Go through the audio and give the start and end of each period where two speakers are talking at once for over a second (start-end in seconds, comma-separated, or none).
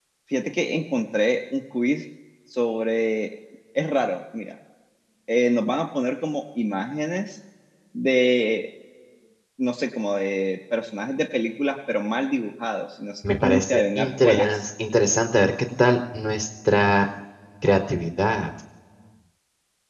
13.3-14.6